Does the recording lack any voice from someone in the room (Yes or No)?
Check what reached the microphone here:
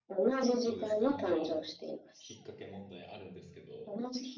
No